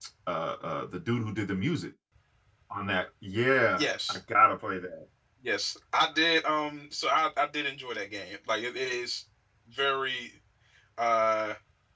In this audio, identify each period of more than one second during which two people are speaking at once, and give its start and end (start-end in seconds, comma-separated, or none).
none